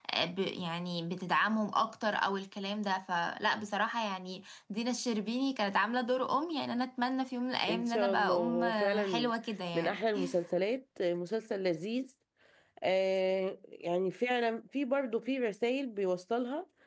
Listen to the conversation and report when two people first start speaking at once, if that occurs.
7.7 s

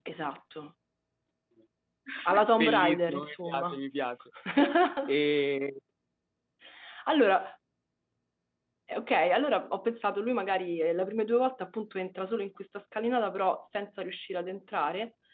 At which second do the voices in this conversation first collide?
2.5 s

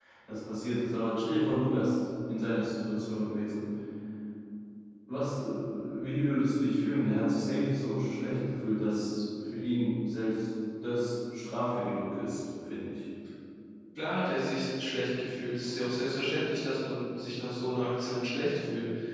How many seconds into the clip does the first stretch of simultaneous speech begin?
none

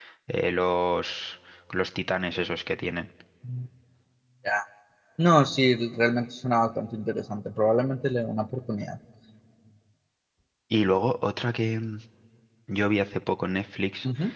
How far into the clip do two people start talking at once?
none

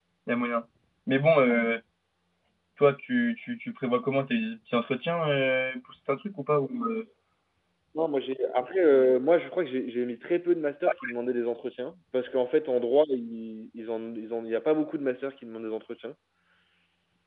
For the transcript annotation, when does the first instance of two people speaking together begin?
none

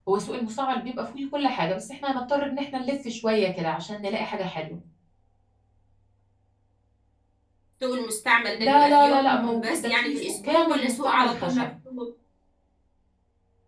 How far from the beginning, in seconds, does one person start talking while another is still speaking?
8.6 s

